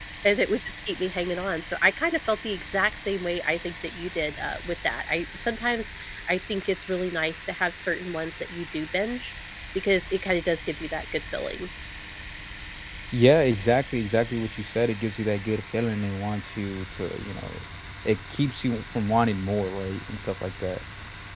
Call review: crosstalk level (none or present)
none